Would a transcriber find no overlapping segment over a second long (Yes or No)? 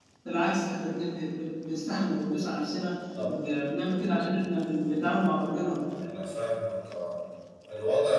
Yes